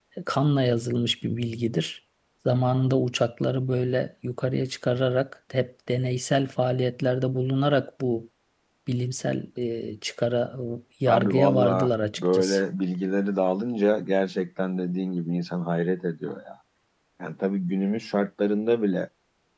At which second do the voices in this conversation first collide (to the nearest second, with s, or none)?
11 s